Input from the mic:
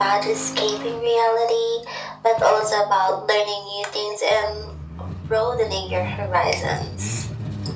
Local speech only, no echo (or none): none